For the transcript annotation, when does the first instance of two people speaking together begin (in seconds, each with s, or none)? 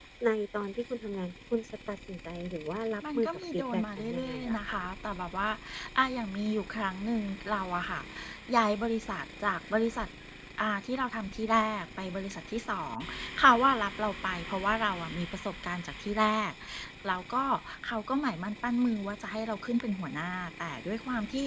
3.0 s